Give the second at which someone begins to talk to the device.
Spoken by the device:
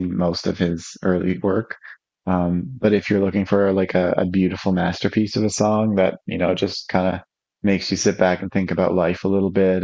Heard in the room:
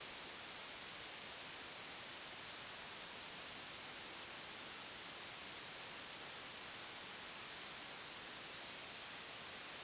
none

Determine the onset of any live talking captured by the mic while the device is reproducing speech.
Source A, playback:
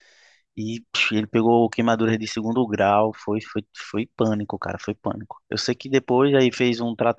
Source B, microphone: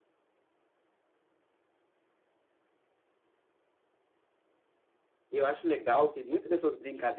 5.3 s

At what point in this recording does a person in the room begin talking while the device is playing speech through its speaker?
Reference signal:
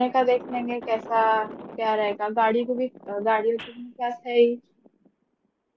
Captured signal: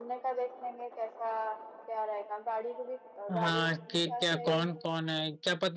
3.3 s

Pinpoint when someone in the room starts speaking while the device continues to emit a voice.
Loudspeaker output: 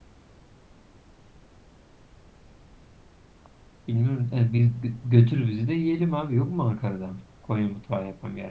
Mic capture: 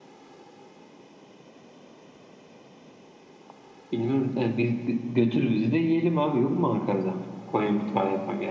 none

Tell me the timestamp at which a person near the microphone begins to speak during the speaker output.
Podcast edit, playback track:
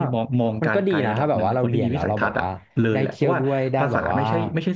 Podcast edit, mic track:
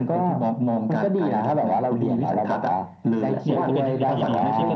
3.4 s

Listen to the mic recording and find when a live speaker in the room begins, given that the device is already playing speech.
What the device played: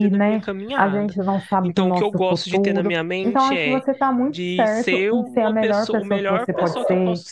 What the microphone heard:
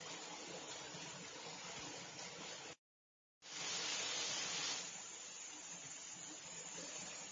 none

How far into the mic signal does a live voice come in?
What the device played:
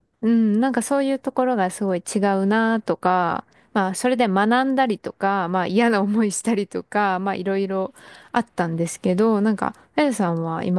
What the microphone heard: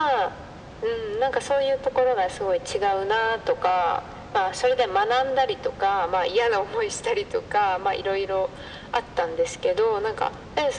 none

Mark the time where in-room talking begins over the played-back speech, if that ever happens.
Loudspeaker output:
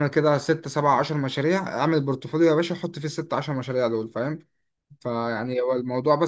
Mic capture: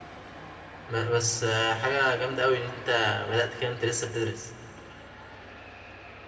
0.9 s

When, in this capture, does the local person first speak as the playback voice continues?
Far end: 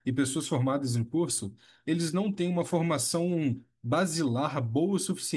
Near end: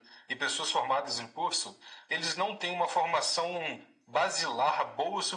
none

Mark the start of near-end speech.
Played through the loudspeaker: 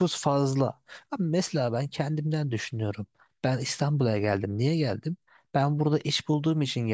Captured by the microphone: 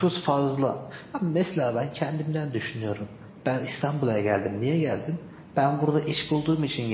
none

